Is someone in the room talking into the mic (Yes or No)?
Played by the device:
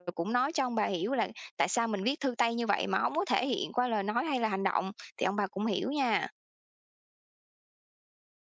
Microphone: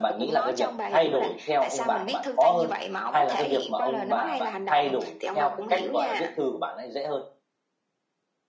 Yes